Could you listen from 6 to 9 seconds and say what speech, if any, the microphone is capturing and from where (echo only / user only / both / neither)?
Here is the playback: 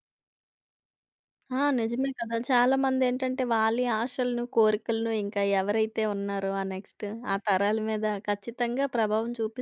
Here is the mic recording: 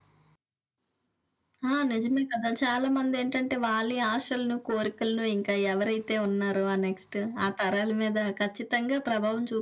echo only